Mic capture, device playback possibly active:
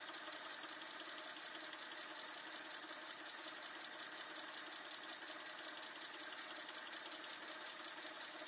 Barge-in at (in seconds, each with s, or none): none